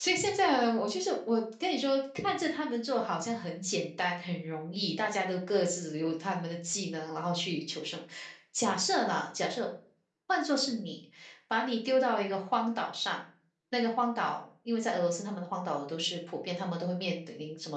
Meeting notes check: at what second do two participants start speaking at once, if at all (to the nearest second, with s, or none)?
none